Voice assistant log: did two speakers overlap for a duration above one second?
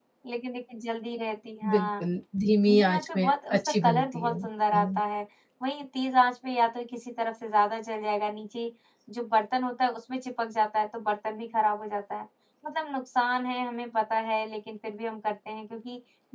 Yes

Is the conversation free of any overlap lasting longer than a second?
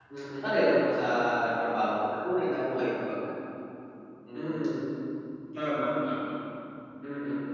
Yes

